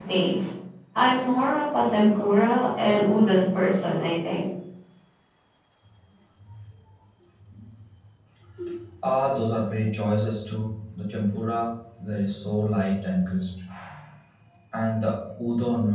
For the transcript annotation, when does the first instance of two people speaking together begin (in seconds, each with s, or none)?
none